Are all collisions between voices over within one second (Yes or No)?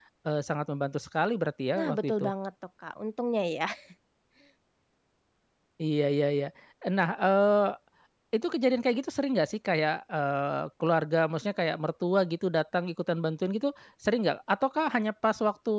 Yes